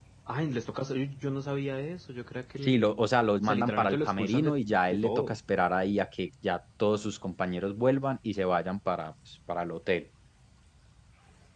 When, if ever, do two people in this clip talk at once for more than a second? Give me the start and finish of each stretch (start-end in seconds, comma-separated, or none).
3.4-5.4